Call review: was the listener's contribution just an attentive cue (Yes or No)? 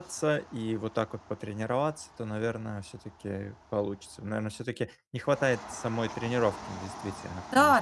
No